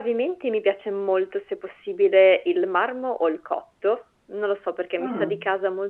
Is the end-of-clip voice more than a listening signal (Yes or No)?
No